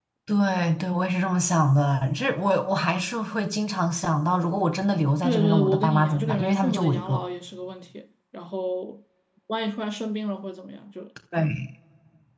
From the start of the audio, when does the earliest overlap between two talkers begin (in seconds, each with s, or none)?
5.2 s